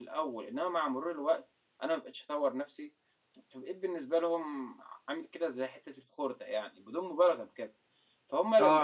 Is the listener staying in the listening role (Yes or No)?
No